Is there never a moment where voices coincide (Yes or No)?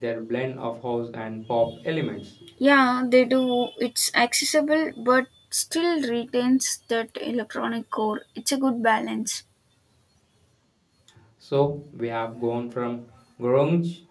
Yes